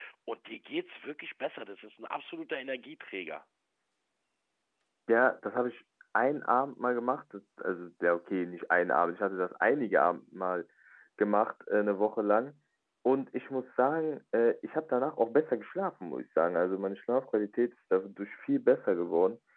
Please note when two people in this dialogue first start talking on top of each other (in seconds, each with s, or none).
none